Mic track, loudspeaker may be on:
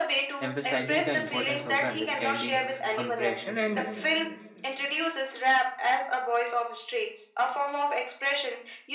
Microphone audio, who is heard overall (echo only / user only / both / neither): both